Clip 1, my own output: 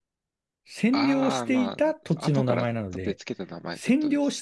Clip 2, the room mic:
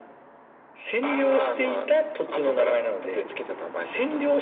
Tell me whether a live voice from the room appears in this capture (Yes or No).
No